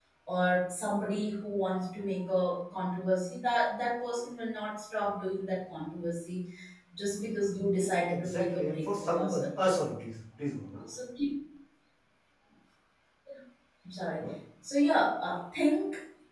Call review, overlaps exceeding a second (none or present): present